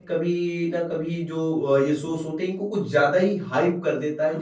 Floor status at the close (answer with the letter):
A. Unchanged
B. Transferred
A